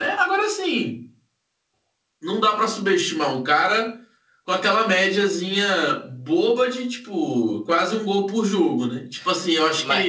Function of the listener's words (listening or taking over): taking over